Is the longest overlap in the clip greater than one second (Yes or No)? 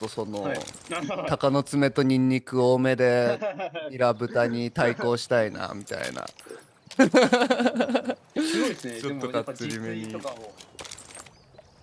Yes